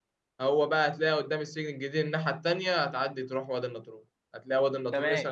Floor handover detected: No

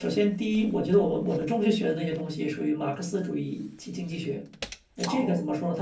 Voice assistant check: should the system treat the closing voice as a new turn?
No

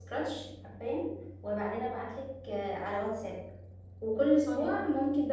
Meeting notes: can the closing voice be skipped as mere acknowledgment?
Yes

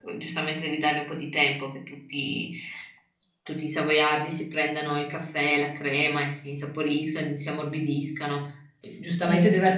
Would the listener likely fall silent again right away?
Yes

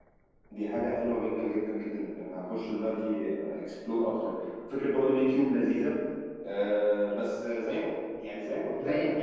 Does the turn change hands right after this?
Yes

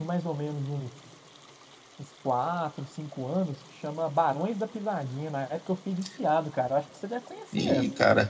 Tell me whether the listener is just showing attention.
No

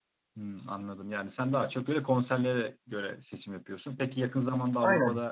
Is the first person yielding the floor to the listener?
No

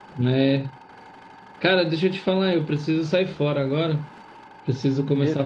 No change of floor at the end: Yes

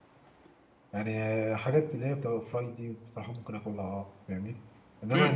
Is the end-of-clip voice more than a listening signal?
Yes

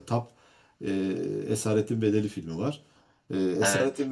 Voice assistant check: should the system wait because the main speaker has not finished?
Yes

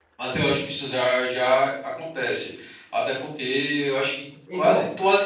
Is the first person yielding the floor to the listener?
No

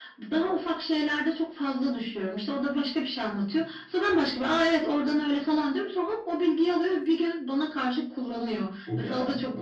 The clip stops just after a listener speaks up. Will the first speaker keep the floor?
Yes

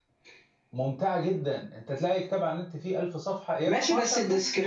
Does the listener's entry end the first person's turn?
Yes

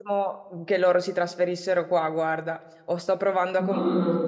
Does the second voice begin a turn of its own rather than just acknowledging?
No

